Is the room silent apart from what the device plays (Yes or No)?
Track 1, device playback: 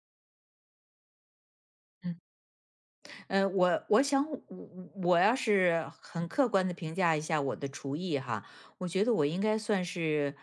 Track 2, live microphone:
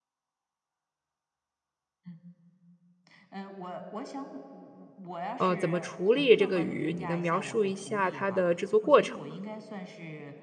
No